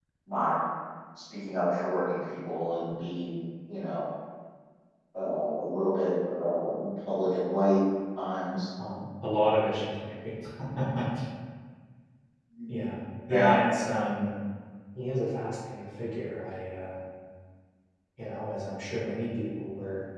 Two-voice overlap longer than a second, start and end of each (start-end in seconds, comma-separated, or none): none